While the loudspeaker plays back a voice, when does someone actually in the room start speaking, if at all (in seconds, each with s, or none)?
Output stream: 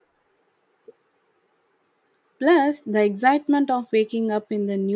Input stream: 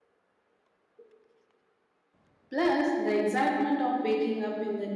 none